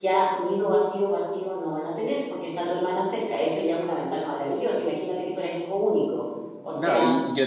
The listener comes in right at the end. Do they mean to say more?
Yes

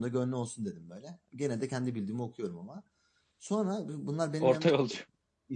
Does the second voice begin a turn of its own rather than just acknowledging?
No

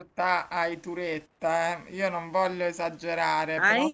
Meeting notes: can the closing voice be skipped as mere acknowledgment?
Yes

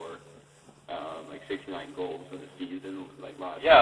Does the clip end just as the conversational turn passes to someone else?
Yes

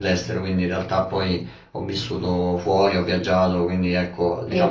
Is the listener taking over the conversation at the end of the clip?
Yes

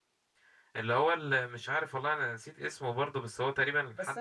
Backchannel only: No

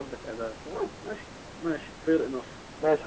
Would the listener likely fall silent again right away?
No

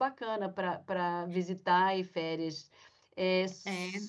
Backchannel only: Yes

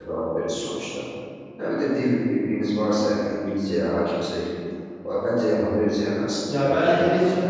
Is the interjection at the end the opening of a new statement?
Yes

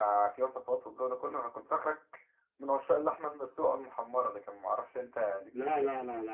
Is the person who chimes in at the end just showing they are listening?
No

